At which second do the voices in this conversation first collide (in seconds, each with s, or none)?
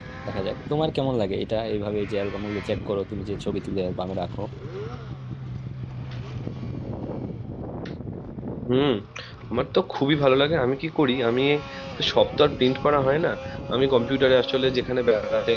none